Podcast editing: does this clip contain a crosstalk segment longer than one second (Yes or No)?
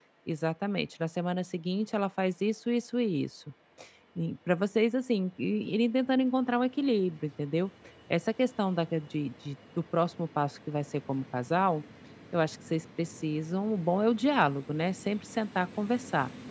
No